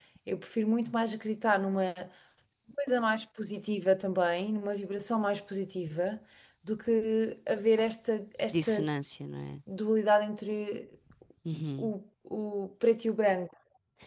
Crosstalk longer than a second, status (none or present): none